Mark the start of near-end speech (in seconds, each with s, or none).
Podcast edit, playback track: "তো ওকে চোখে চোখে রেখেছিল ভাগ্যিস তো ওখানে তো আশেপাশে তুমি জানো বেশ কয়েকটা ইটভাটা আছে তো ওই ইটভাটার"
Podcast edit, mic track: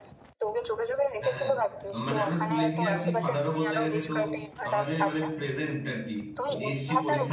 1.2 s